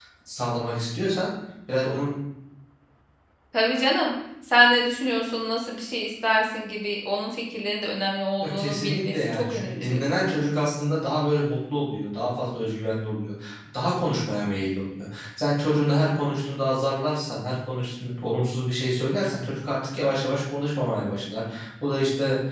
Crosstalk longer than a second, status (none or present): present